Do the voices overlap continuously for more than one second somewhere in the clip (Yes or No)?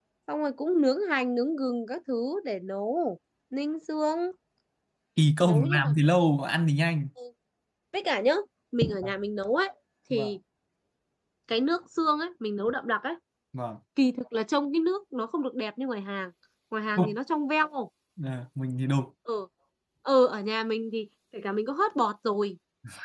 No